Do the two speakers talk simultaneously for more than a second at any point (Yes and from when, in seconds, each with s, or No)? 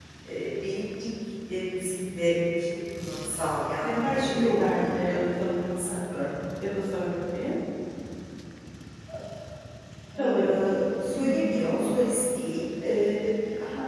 Yes, from 3.8 s